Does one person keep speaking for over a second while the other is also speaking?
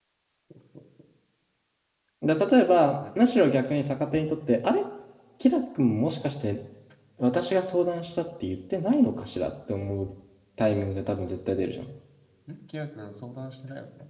No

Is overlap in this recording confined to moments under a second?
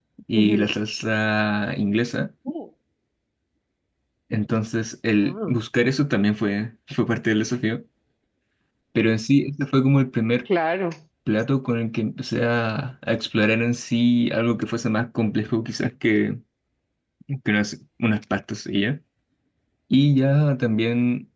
Yes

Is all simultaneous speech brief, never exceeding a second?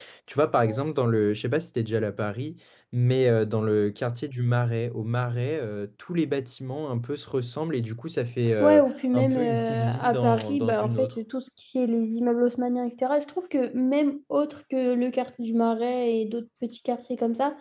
No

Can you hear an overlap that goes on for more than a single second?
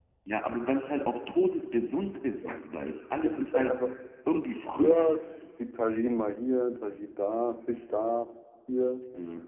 No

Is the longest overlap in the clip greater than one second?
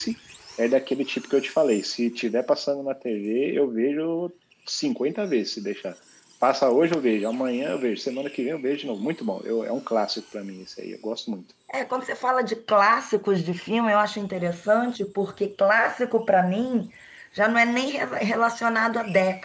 No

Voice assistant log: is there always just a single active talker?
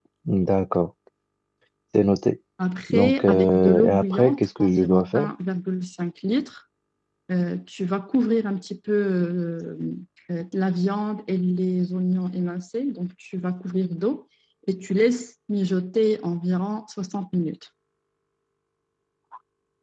No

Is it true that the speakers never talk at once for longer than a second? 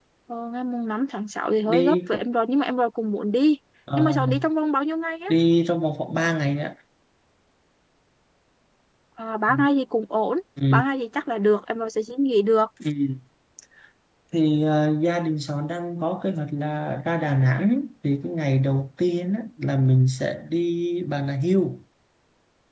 Yes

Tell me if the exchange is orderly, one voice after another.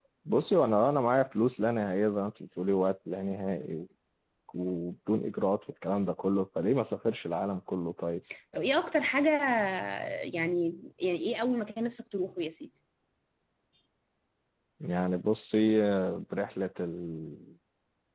Yes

